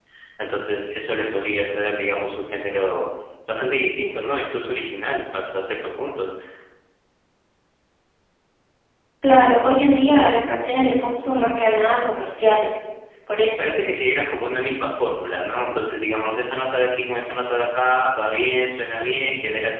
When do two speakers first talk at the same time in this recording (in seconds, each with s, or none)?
none